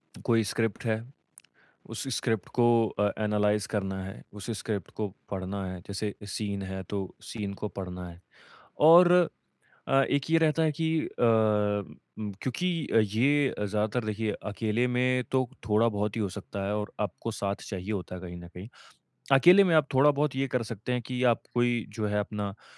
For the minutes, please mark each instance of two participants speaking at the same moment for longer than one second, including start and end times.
none

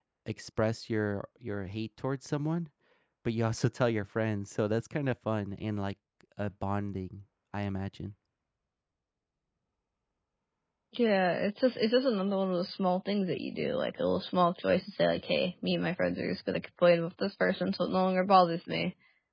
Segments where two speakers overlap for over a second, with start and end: none

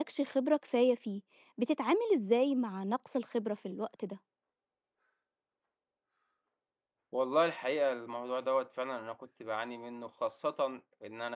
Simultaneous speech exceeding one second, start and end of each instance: none

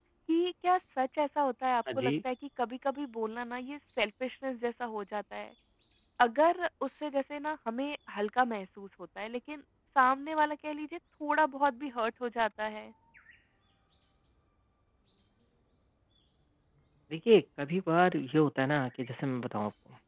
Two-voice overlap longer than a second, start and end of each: none

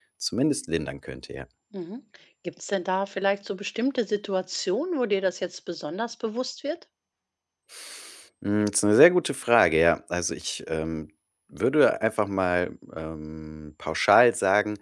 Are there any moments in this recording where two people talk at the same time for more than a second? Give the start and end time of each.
none

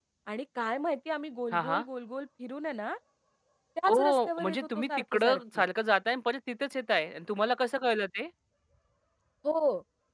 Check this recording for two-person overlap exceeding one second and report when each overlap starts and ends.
3.9-5.6

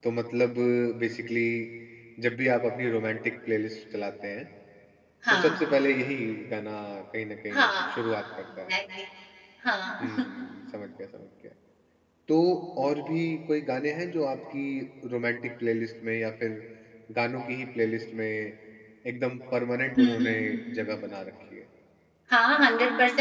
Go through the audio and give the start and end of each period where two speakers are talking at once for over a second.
none

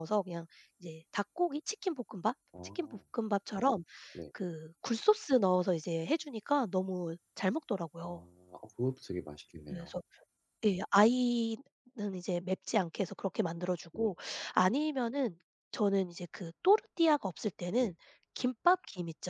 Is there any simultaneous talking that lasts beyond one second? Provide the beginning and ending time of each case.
none

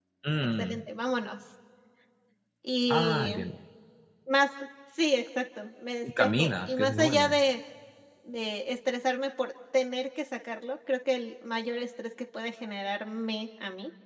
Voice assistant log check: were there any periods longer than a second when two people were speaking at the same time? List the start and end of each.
6.0-7.4

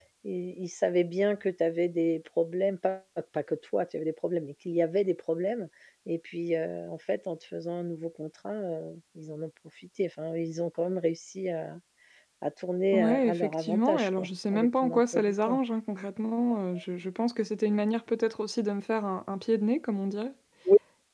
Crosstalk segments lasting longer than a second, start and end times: 12.9-15.6

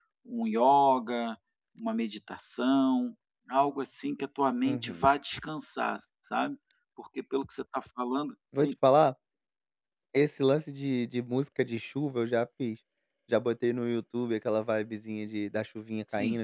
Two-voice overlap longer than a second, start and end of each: none

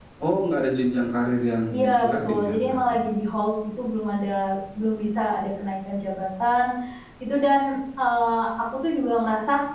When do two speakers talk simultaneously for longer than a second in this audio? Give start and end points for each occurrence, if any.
1.7-3.0

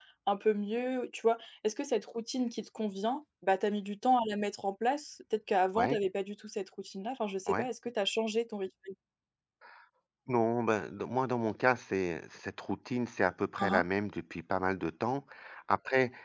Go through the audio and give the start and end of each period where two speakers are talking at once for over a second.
none

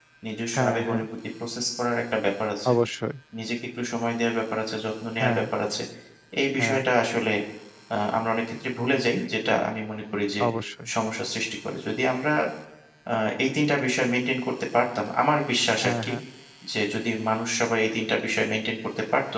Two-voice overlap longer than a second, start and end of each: none

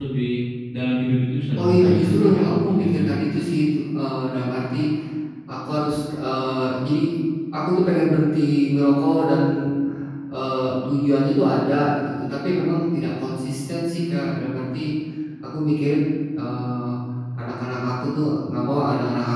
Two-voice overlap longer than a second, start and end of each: 1.6-3.1

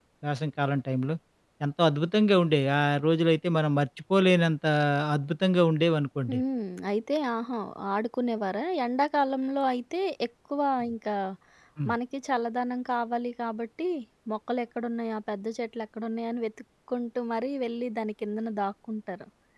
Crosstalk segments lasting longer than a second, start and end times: none

